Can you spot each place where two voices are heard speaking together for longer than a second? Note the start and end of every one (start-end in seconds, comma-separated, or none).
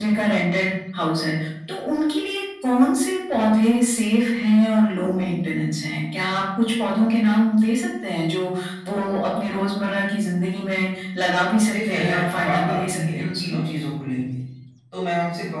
11.7-13.6